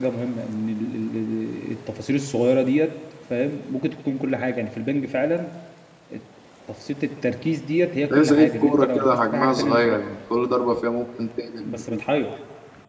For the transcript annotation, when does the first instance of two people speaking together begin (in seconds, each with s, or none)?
8.1 s